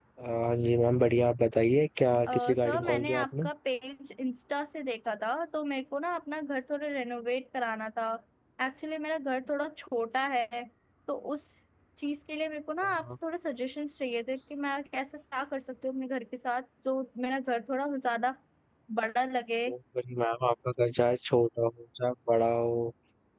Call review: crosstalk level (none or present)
present